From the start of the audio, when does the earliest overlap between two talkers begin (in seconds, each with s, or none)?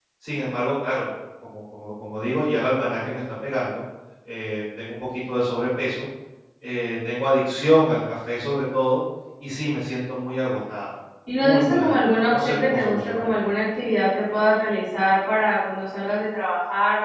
11.3 s